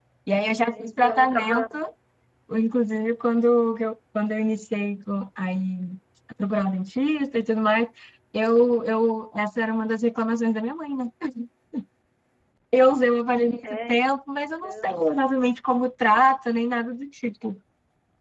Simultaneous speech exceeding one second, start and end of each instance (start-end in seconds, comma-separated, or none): 0.5-1.8